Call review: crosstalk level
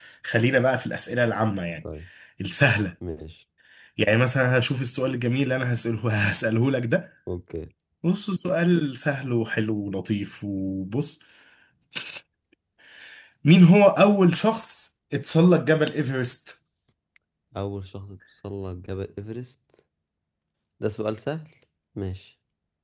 none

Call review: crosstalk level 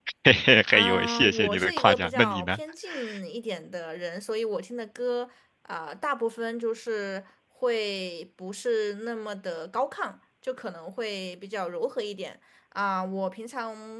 present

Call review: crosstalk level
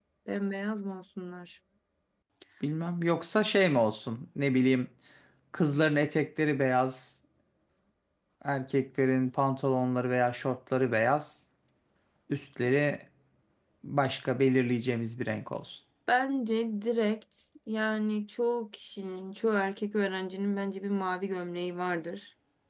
none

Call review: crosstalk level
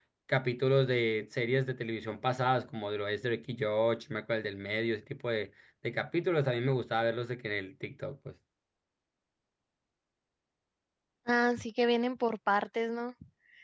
none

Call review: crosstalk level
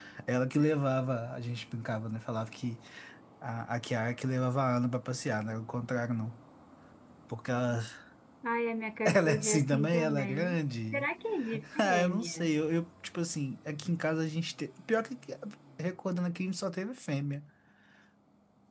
present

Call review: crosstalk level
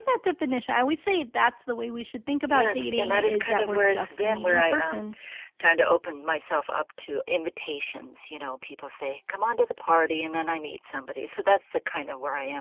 present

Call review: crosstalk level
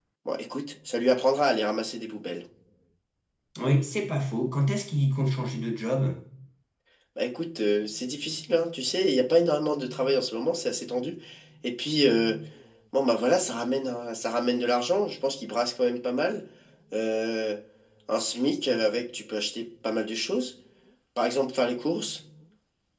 none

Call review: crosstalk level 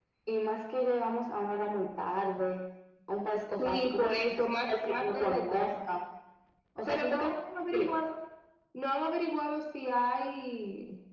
present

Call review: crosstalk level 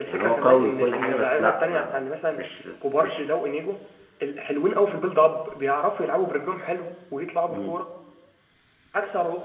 present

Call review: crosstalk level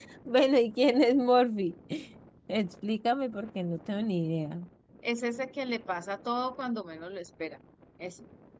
none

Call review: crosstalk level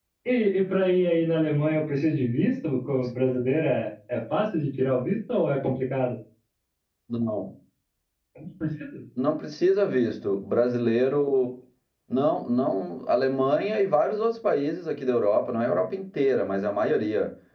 none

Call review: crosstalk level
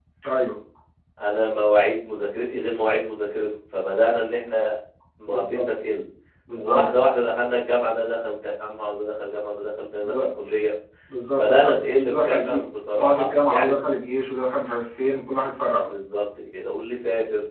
present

